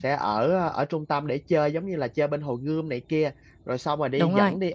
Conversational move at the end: listening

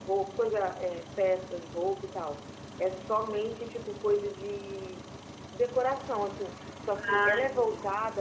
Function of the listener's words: listening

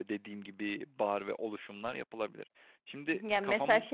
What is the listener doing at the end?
taking over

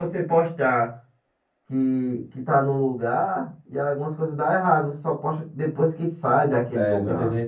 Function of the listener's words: taking over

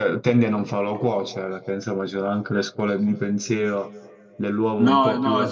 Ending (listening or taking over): taking over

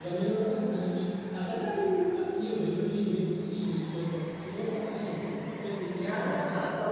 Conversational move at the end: taking over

